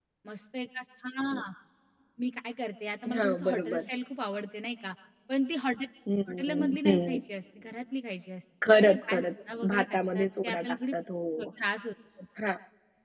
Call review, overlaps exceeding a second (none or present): present